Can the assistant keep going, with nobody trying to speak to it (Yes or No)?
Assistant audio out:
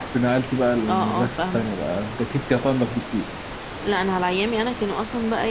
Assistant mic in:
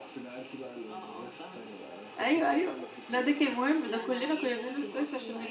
No